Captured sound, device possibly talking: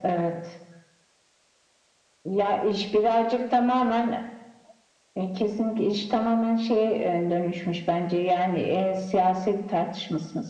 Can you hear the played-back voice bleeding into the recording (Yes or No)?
Yes